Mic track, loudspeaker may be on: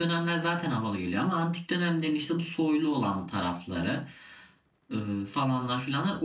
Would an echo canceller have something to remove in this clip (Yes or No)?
No